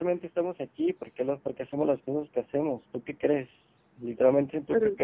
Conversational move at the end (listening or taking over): listening